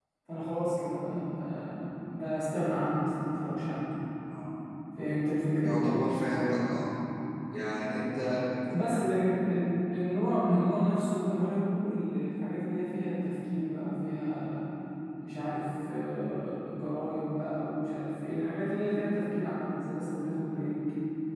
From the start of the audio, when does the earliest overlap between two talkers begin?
none

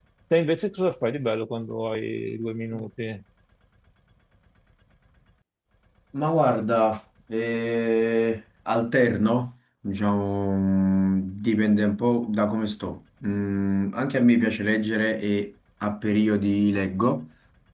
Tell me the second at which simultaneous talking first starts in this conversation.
none

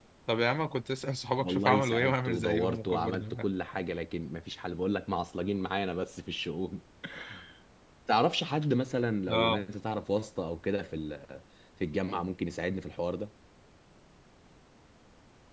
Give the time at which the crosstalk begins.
1.4 s

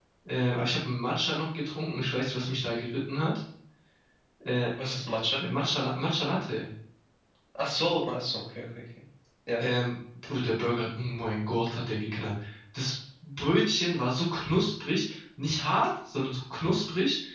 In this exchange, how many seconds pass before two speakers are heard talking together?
none

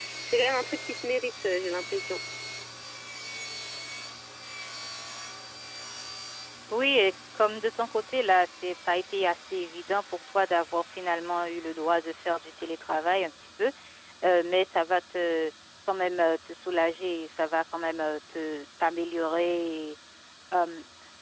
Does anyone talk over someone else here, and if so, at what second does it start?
none

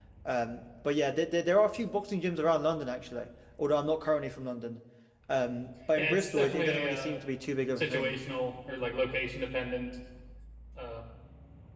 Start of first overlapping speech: 6.0 s

